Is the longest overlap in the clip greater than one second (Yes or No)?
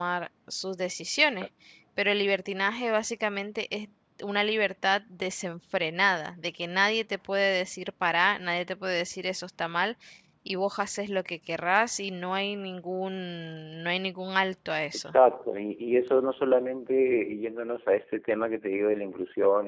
No